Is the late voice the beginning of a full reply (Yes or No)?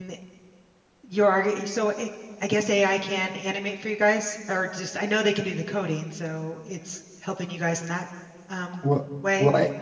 Yes